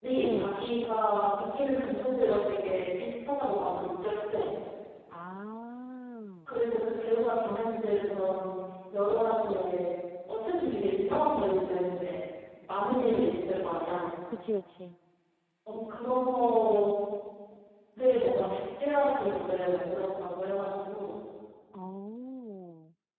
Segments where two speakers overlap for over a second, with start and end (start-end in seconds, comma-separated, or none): none